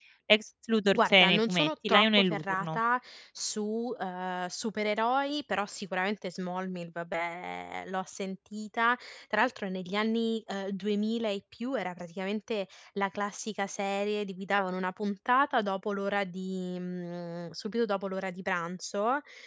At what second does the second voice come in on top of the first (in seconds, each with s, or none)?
0.9 s